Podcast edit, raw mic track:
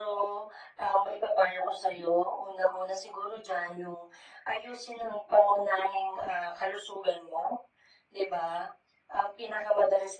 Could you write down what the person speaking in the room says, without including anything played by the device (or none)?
none